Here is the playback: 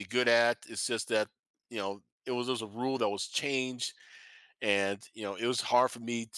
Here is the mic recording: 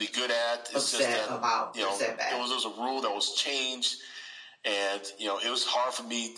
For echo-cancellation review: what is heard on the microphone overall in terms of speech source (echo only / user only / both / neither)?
both